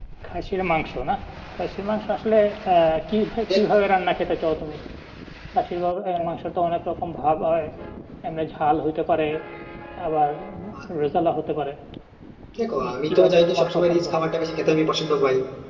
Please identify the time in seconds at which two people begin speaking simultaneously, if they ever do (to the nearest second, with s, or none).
13 s